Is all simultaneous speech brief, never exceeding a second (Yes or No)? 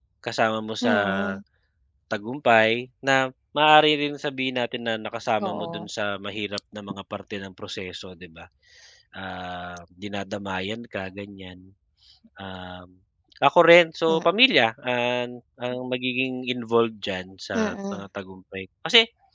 Yes